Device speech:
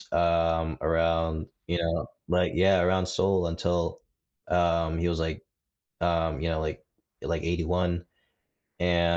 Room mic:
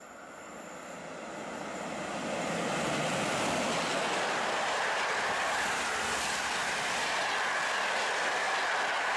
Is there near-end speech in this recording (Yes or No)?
No